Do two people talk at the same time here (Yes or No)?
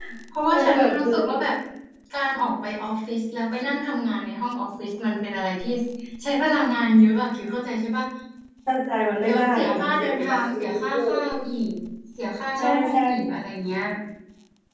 Yes